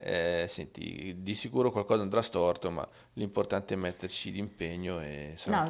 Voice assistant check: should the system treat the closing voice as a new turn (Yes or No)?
Yes